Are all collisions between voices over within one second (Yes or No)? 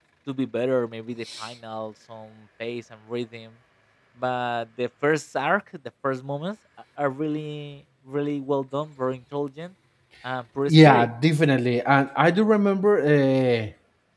Yes